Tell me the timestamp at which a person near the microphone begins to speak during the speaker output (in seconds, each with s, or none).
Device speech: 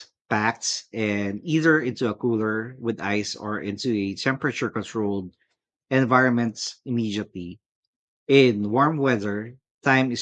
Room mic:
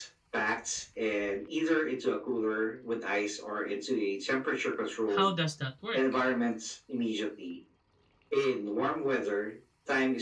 5.0 s